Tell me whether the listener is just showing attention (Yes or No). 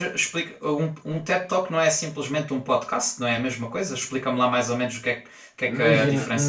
No